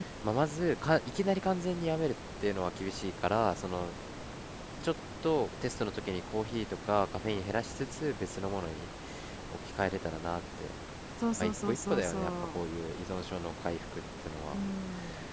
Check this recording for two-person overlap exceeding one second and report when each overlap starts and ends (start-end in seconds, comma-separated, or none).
11.3-12.6